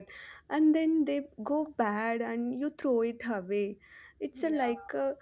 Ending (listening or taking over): listening